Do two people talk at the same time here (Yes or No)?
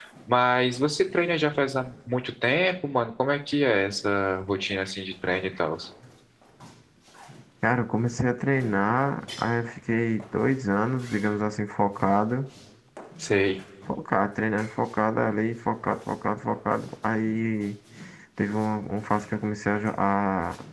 No